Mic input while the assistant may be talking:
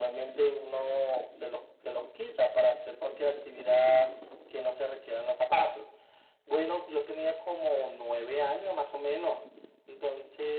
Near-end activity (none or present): none